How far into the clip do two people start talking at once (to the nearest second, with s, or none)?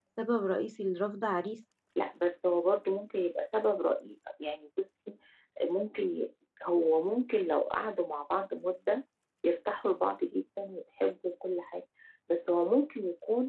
none